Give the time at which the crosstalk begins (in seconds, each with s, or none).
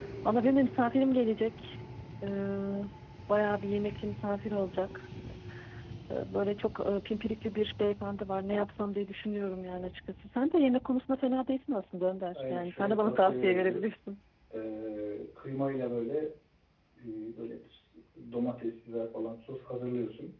12.3 s